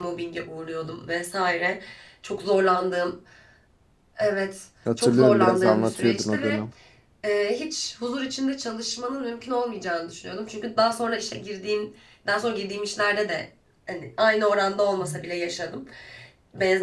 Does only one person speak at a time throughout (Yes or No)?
No